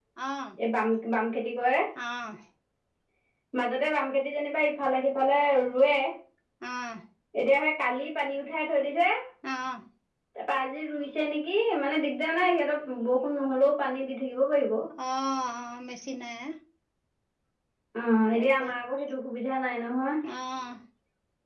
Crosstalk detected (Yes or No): No